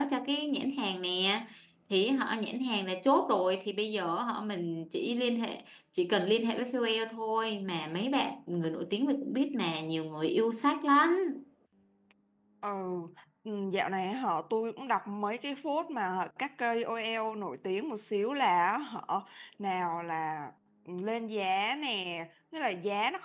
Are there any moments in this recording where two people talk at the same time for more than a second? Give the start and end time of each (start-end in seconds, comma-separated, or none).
none